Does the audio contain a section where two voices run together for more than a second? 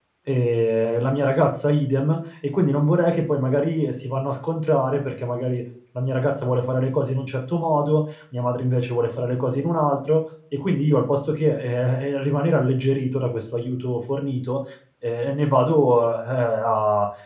No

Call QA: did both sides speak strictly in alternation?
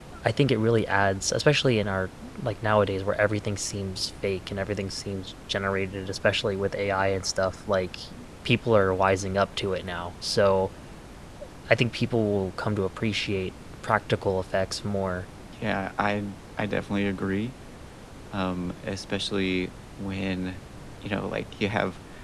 Yes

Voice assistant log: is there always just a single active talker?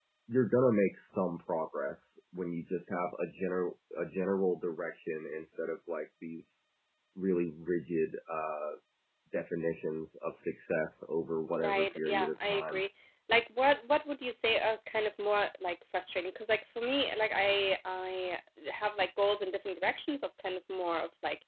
No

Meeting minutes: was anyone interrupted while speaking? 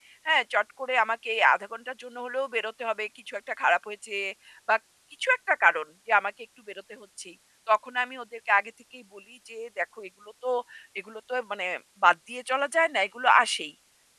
No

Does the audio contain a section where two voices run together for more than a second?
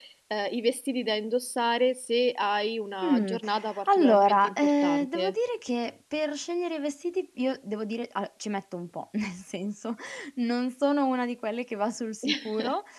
Yes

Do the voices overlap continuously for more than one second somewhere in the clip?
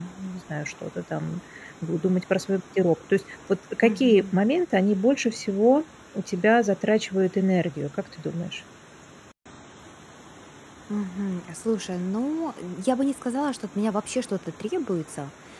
No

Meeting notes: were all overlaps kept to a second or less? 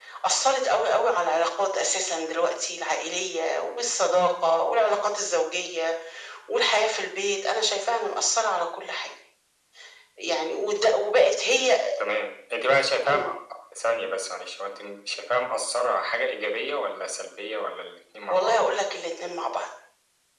Yes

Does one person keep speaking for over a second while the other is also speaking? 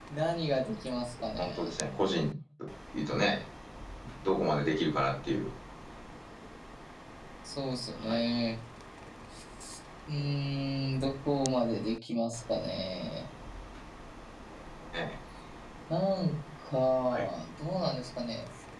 No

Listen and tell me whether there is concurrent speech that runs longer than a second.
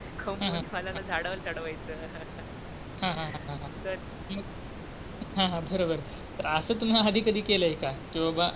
No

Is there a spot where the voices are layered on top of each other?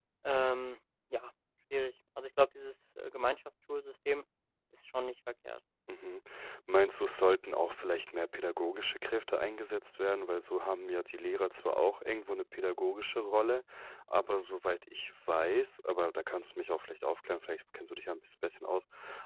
No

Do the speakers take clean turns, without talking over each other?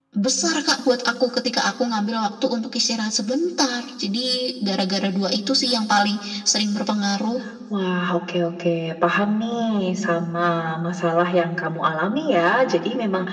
Yes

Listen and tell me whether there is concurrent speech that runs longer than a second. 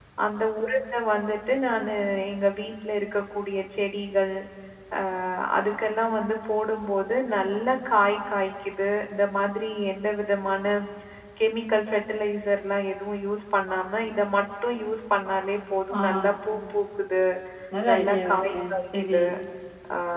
Yes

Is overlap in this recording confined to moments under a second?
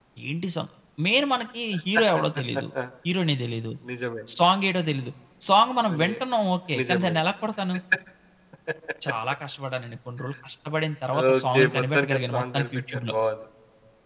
No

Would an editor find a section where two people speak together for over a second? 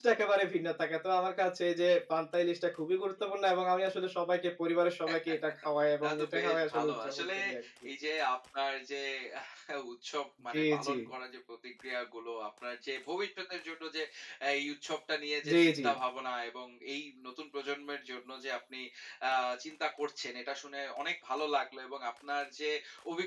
Yes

